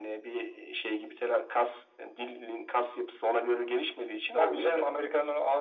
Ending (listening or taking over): taking over